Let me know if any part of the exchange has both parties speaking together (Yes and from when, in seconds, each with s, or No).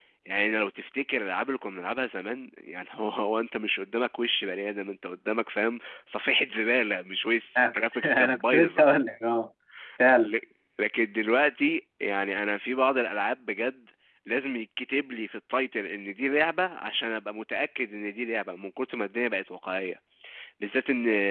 Yes, from 7.5 s